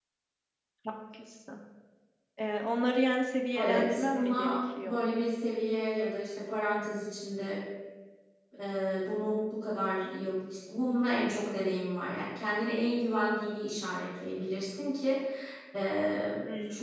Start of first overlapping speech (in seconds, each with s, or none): 3.5 s